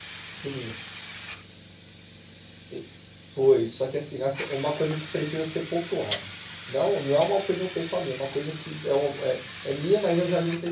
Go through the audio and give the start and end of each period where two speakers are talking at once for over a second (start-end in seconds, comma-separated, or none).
none